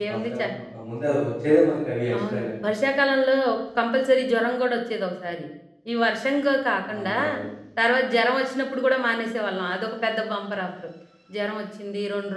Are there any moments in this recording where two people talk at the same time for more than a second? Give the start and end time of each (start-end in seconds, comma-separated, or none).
none